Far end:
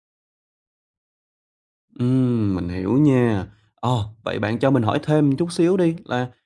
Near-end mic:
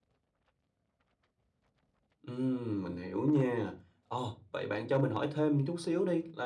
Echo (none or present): present